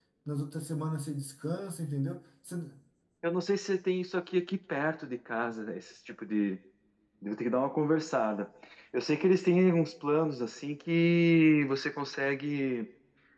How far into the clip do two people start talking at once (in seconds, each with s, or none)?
none